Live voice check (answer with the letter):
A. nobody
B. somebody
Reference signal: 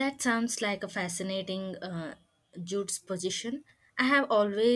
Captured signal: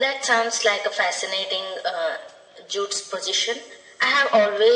A